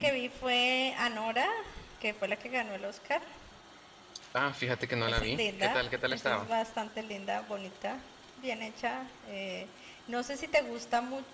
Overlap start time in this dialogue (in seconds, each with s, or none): 5.0 s